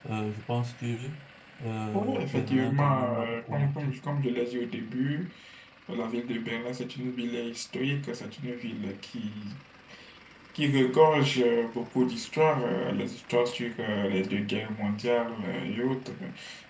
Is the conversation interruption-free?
No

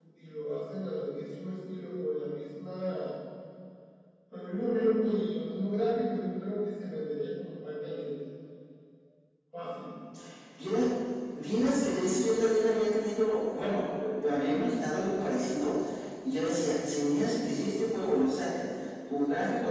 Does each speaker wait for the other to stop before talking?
Yes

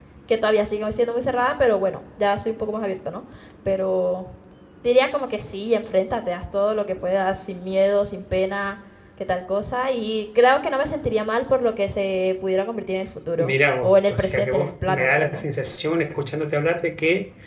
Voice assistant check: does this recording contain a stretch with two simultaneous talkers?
Yes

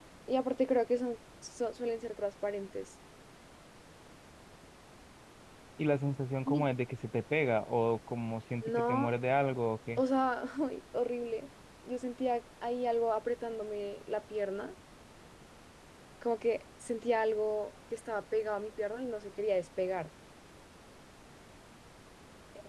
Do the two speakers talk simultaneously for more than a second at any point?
No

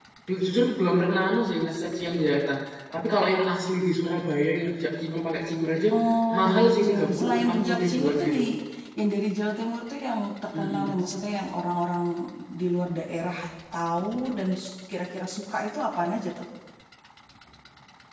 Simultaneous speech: Yes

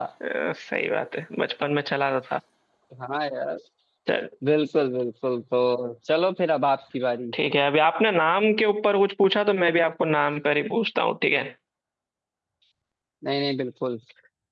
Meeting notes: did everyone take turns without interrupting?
Yes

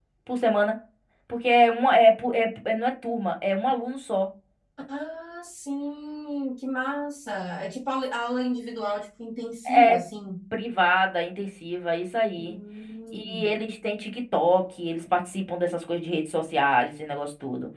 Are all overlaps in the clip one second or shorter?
Yes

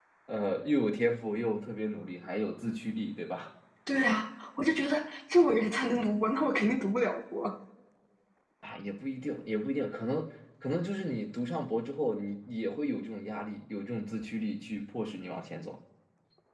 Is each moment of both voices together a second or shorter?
Yes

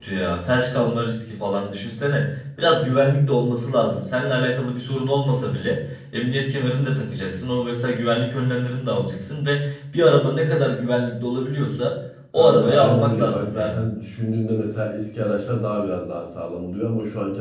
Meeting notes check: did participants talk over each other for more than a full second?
Yes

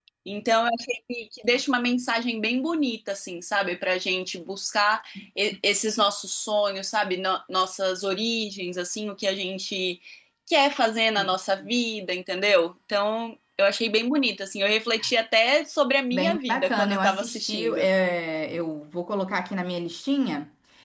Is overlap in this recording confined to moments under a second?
No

